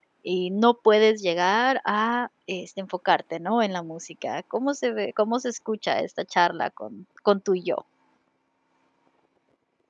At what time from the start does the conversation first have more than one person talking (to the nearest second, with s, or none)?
none